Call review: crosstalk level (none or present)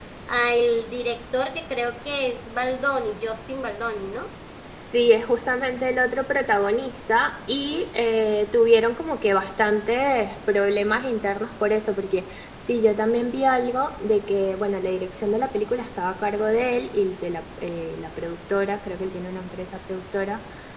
none